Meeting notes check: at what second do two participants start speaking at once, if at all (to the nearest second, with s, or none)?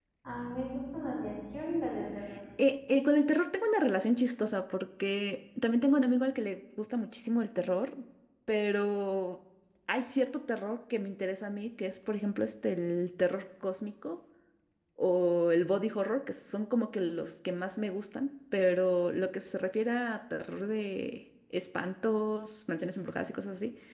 none